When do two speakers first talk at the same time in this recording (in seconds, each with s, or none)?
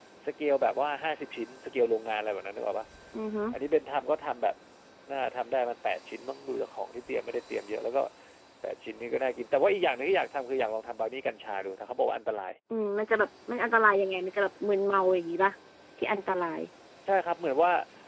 none